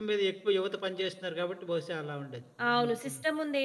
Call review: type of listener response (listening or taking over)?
taking over